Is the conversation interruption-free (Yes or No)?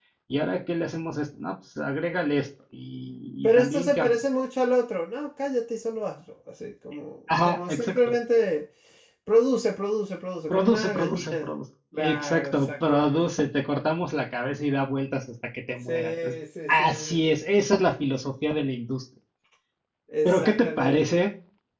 No